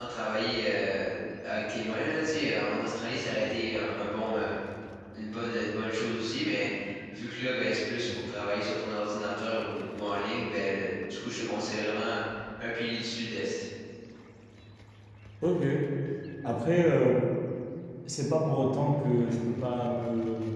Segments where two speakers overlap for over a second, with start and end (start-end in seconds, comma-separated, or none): none